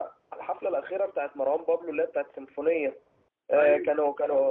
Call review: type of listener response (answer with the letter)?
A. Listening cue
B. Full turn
A